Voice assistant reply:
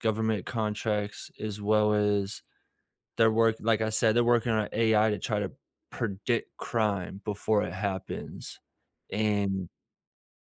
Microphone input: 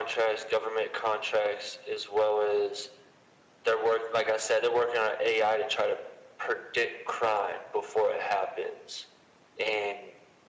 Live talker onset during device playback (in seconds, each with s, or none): none